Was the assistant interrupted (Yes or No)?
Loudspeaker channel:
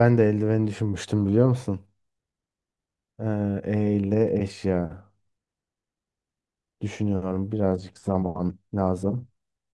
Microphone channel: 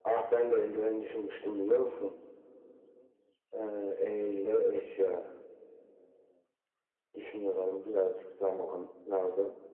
No